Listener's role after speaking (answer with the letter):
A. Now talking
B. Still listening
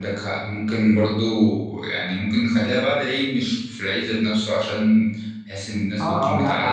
A